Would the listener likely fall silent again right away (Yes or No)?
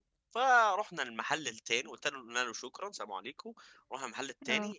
Yes